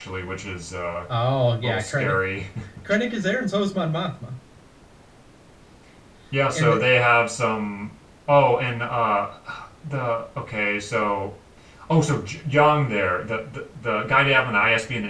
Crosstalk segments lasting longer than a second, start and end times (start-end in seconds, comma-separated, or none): none